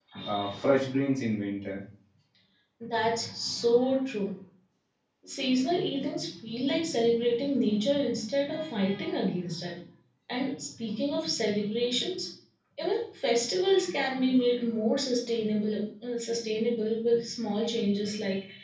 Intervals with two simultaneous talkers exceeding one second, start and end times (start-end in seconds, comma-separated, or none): none